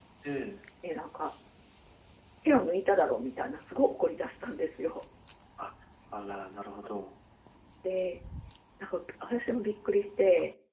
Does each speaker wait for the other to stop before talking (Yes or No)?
Yes